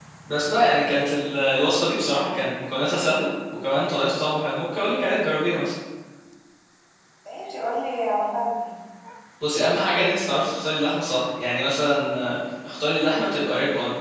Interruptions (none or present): none